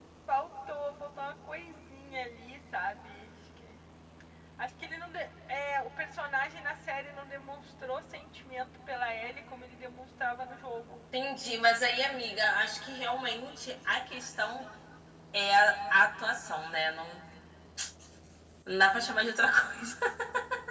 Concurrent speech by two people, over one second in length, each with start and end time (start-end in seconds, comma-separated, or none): none